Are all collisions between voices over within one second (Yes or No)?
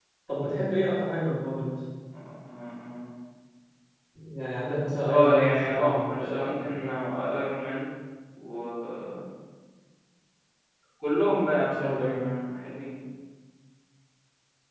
No